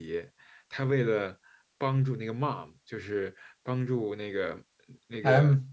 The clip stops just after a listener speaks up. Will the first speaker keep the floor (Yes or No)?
Yes